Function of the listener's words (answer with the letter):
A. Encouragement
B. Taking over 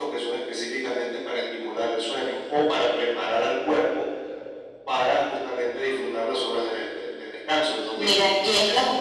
B